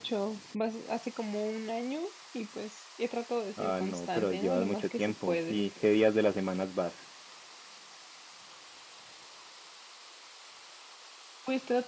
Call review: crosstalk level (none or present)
present